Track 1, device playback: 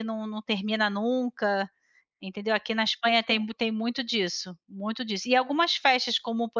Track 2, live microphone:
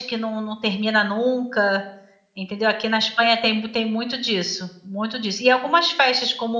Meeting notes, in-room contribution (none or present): none